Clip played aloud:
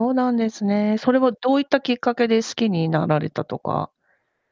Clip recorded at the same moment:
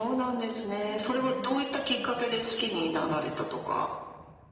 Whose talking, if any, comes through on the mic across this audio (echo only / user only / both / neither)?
both